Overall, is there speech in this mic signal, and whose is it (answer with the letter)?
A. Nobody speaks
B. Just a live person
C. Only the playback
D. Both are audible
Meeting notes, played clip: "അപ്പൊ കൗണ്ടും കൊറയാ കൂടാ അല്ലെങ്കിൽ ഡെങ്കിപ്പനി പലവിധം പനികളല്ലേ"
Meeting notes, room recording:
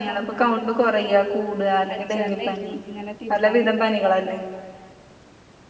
D